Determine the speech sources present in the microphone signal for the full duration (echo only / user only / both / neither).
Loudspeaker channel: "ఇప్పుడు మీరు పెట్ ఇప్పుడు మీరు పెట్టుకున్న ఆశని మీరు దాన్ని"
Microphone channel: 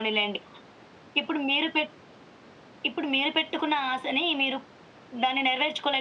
echo only